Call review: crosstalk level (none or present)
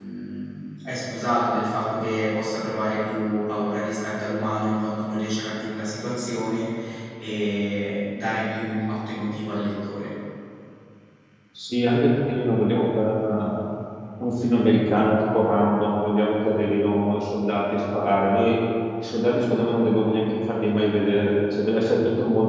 none